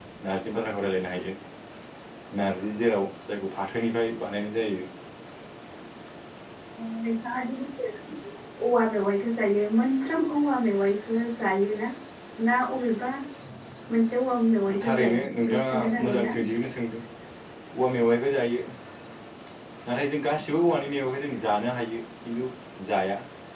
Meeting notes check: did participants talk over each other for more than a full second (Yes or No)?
Yes